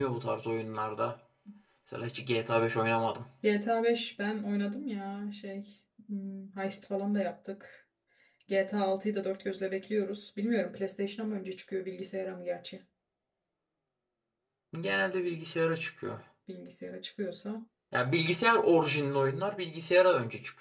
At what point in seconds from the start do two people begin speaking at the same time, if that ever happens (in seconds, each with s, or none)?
none